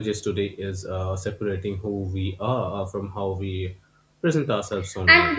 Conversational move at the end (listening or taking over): taking over